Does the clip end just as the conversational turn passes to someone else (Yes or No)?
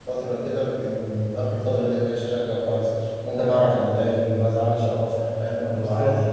Yes